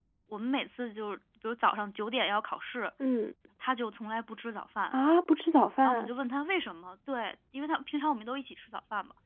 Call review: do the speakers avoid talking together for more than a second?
Yes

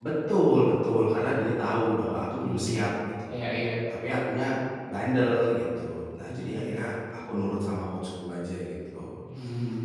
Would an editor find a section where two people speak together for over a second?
No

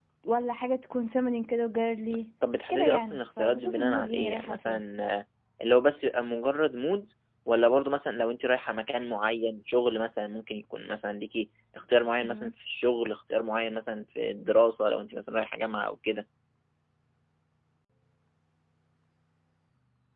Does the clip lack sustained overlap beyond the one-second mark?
No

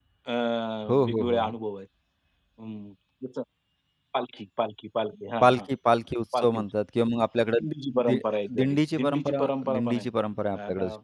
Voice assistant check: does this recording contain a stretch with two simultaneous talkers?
Yes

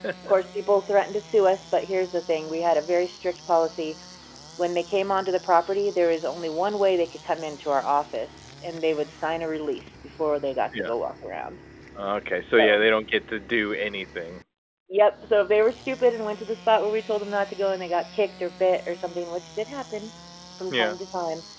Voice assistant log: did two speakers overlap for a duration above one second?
No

